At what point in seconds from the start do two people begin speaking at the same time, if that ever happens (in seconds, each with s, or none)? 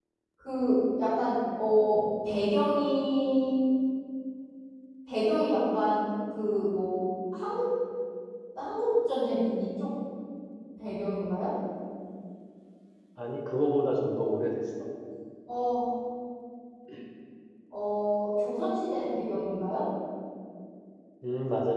none